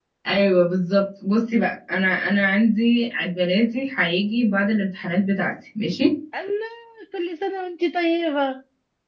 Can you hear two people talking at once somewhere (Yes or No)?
No